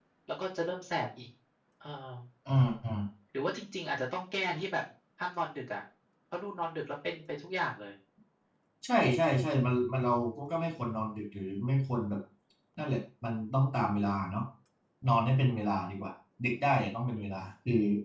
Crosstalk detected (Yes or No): No